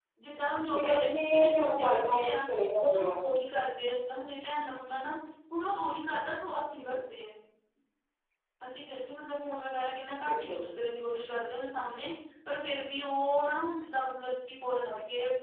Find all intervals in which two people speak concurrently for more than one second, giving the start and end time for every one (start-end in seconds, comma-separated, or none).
0.8-2.4